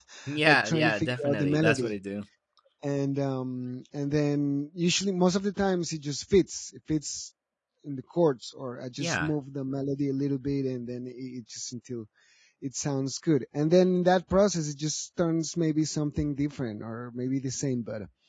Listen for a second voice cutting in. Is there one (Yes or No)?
Yes